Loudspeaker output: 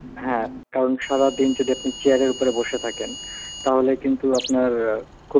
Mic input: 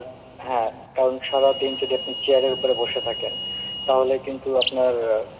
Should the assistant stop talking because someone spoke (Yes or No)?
No